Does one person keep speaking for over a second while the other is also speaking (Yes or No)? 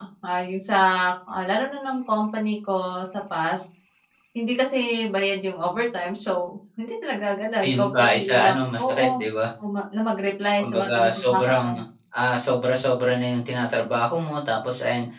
Yes